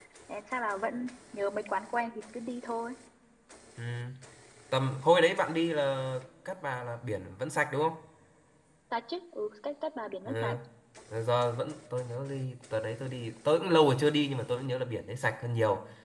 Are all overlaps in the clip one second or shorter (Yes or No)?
Yes